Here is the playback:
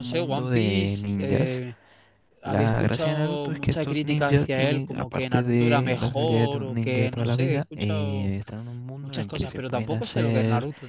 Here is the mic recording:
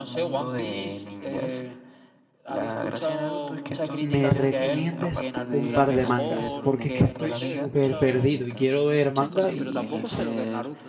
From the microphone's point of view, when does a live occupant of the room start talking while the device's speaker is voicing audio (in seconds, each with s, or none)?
4.0 s